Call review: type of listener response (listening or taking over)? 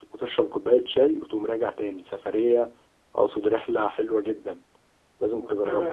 taking over